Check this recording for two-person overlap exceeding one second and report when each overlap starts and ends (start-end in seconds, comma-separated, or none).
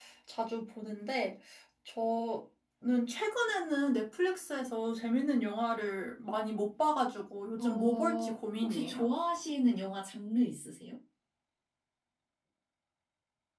7.6-9.1